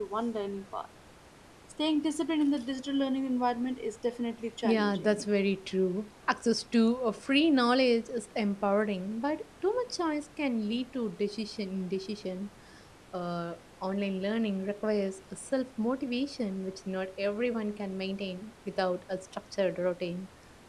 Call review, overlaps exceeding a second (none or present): none